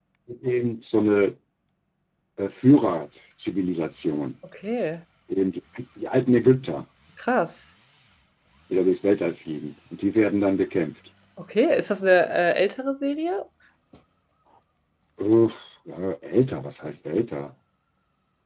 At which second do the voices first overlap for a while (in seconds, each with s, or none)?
none